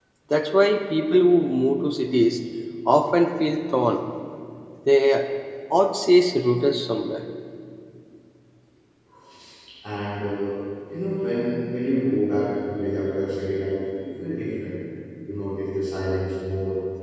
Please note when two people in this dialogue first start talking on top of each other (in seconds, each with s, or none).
none